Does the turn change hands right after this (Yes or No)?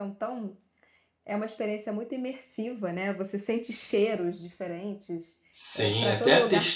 Yes